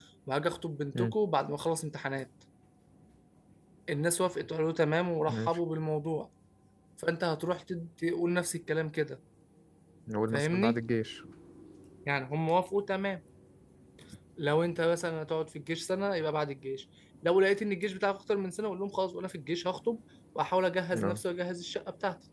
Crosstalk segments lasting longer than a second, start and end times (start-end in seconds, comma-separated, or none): none